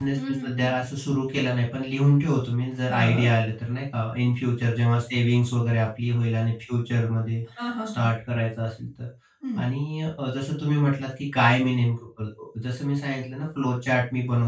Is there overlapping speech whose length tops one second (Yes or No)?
No